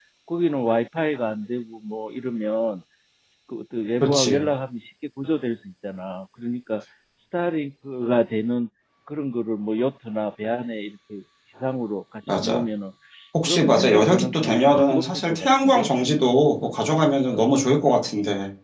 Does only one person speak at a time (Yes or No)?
No